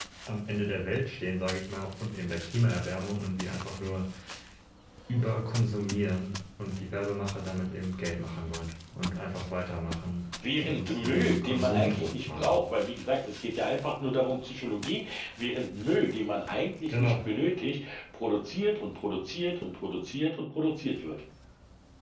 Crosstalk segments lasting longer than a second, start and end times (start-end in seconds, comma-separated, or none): 10.6-12.6